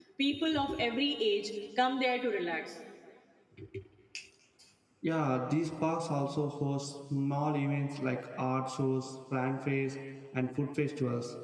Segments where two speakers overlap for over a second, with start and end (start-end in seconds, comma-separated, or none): none